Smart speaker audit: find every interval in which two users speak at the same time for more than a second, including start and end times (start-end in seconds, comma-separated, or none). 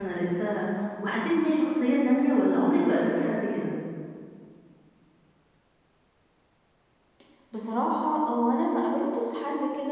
none